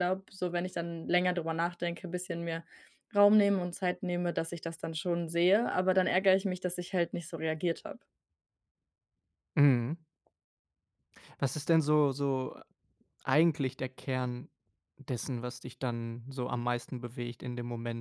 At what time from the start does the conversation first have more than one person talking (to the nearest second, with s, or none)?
none